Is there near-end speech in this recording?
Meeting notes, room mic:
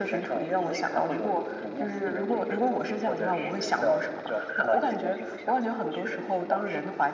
No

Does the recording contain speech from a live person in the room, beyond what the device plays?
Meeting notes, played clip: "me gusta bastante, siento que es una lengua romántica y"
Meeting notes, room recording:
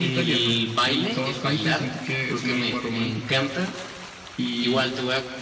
Yes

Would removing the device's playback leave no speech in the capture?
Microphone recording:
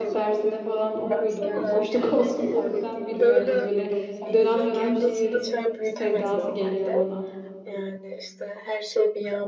No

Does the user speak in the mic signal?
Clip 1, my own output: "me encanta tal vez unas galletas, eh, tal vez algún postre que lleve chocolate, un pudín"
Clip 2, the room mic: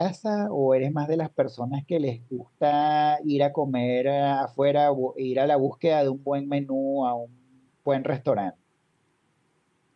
Yes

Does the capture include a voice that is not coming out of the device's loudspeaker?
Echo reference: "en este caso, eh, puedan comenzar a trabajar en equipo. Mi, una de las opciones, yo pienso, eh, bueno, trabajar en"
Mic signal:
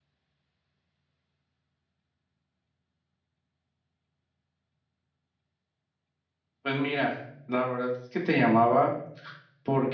Yes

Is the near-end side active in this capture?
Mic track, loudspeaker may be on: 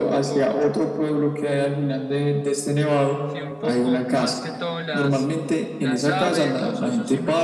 Yes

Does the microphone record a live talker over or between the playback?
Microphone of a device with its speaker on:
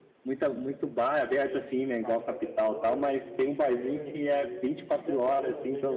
Yes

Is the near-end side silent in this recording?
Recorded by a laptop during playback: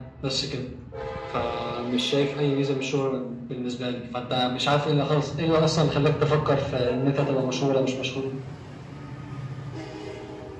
Yes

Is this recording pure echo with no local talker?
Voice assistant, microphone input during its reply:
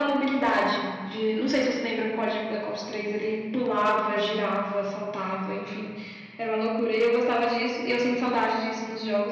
Yes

